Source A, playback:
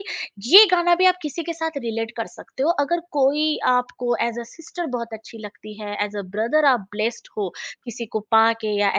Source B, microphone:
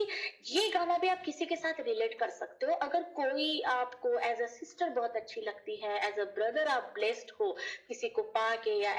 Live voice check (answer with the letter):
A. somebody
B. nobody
B